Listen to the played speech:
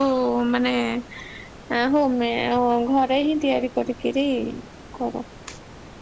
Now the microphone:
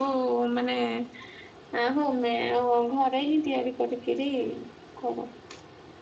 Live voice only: none

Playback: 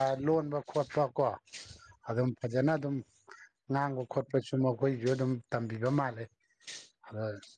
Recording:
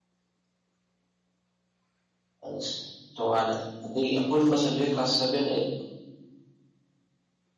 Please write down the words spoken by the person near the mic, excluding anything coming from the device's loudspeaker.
ꯑꯁ ꯇꯣꯉꯥꯟꯅ ꯑꯇꯩ ꯑꯄꯨꯟꯕ ꯁꯕꯖꯦꯛ ꯀ꯭ꯂꯥꯁ ꯁꯚꯦꯟ ꯑꯩ

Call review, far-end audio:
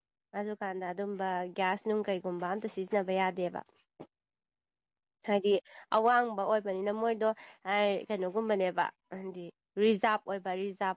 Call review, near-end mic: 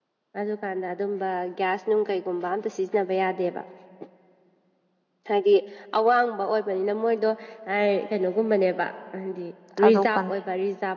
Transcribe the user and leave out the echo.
ꯊꯥꯗꯣꯛ ꯐꯅꯤ

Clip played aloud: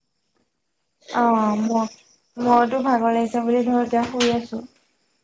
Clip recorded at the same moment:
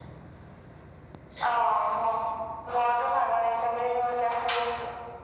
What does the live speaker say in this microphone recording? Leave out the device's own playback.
none

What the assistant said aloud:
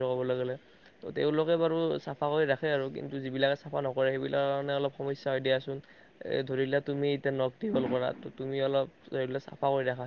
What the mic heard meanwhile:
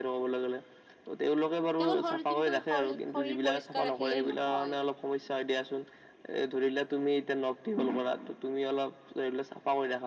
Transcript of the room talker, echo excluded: কেৱল শৰীৰ কিন্তু শৰীৰ শৰীৰ পৰিষ্কাৰ ৰাখিলেই নহয়।

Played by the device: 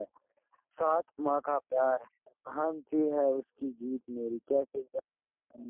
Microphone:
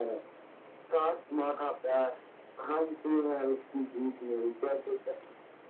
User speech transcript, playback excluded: none

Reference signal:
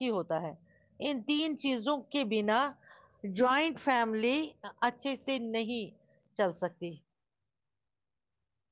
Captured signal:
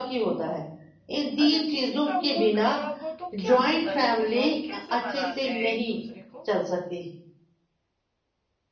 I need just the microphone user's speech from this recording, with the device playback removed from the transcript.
اگر کسی کا موڈ خراب ہو تو کیا ہوتا ہے پھر وہ وہ کیسے مناتے ہیں ایک دوسرے کو

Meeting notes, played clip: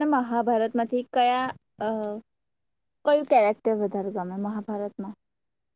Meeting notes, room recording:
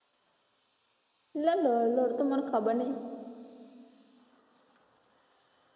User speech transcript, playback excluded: એટલે લડ લડ તો મને ખબર નહિ

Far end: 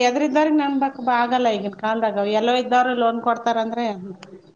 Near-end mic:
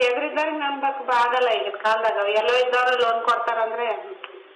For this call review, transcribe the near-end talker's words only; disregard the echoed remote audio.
none

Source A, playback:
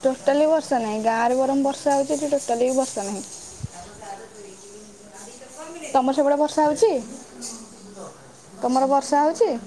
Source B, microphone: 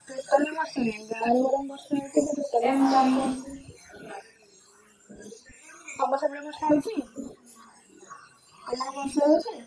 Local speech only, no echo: ଏମ୍ କମ୍ କରୁଚି।

